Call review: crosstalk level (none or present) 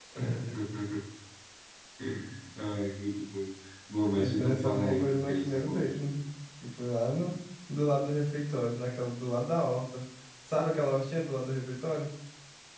present